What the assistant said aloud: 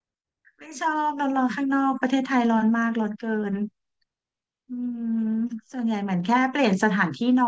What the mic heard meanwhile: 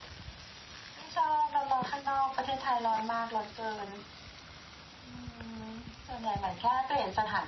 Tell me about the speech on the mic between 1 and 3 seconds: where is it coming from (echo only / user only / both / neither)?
echo only